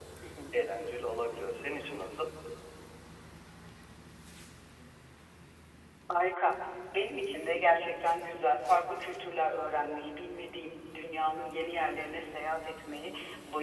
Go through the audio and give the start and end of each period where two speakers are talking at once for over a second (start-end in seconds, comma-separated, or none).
none